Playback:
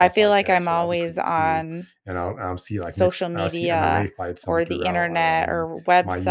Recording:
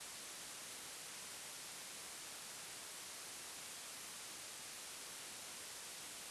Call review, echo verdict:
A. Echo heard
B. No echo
B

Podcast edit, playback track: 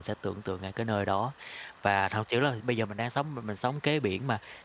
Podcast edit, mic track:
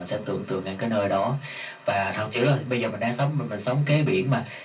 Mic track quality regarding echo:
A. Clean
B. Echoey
B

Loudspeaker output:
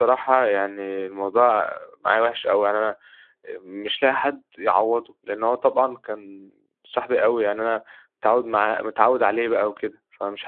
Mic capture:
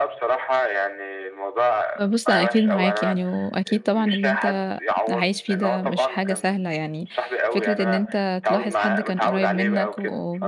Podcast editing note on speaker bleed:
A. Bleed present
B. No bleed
A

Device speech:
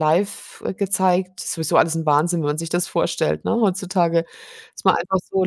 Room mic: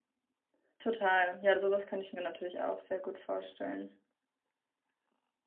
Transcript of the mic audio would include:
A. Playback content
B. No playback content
B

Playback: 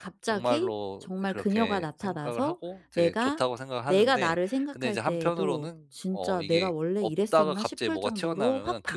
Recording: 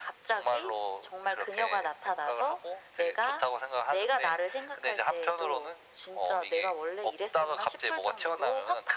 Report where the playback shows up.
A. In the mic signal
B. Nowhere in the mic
A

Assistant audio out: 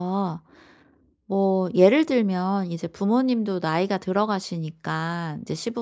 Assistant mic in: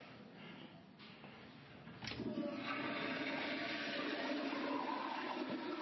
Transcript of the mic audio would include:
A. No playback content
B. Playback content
A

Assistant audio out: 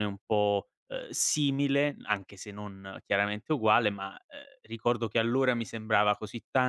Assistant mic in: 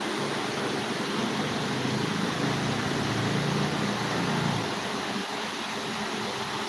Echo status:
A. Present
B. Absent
B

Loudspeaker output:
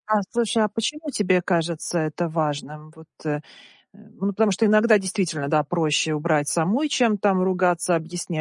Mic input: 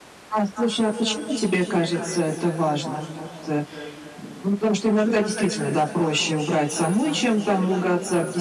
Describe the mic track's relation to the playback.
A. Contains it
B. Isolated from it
A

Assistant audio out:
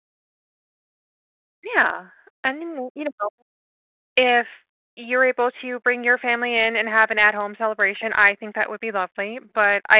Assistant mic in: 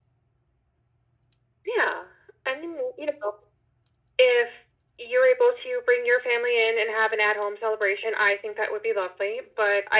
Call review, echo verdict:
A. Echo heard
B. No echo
A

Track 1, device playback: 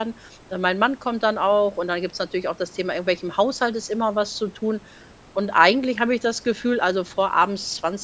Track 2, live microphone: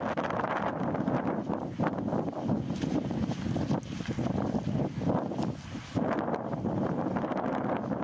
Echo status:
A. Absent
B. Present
A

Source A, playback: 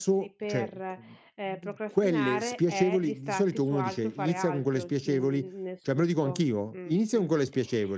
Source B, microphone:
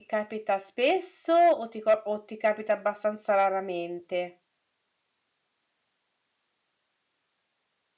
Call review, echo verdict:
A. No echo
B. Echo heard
A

